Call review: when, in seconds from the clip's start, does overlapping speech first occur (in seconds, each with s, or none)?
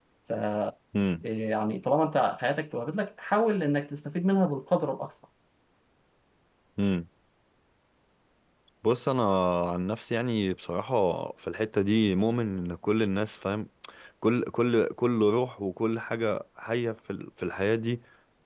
none